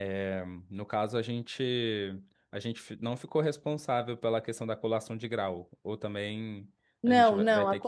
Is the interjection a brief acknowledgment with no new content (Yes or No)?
No